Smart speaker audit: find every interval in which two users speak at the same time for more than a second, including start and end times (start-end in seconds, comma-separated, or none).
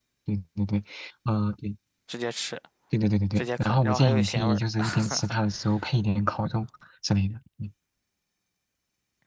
3.4-4.6